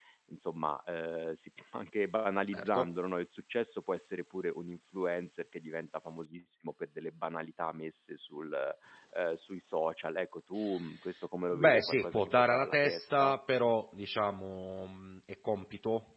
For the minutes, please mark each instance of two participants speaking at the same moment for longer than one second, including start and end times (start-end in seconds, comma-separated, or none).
11.5-13.3